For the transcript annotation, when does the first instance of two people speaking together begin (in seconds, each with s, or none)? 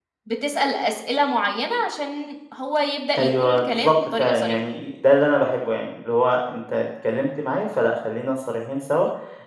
3.1 s